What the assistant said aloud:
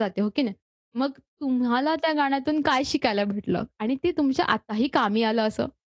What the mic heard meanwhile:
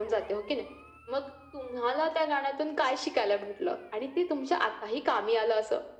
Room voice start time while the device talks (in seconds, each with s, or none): none